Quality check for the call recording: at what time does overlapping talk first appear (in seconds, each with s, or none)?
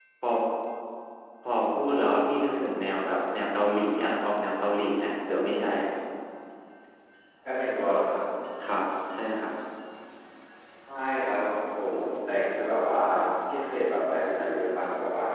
none